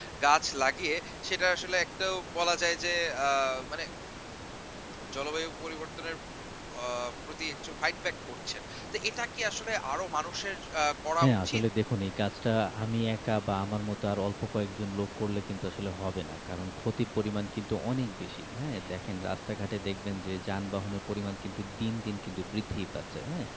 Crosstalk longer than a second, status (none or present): none